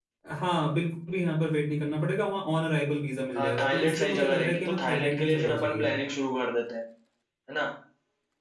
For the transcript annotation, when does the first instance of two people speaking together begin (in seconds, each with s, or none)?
3.4 s